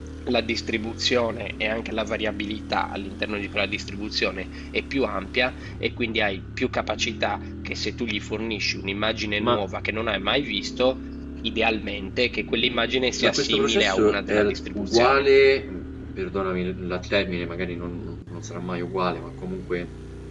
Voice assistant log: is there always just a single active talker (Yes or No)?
No